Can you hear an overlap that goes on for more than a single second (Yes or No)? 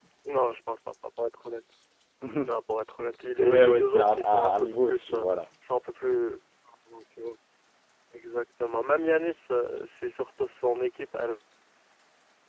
Yes